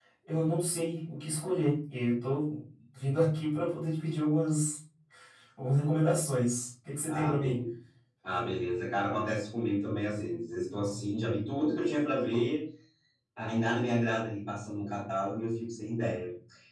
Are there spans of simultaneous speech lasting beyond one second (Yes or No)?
No